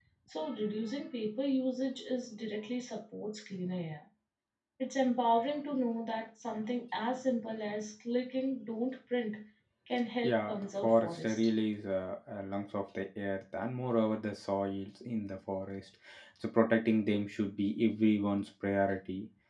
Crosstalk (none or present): present